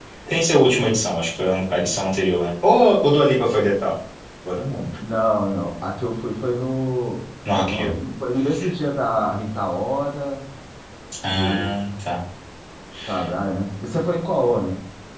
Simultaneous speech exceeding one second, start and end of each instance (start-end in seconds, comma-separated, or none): none